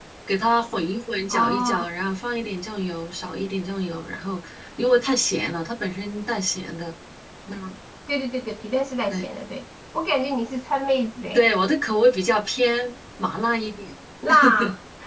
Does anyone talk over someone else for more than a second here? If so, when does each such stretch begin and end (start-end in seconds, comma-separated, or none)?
none